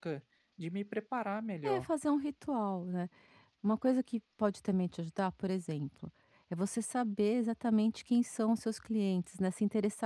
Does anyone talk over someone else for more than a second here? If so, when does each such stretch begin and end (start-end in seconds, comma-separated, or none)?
none